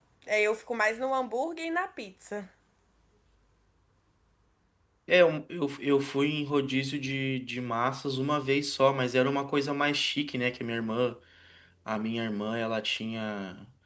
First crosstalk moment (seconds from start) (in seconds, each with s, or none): none